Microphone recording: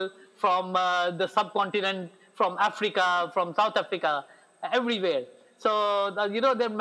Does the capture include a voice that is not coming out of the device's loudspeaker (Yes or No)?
No